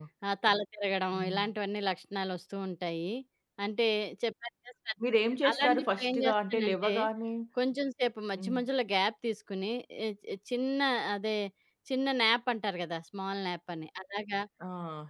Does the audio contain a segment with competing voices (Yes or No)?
Yes